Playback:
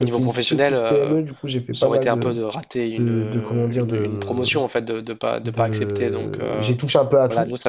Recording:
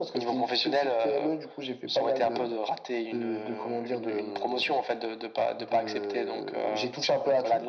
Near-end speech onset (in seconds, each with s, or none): none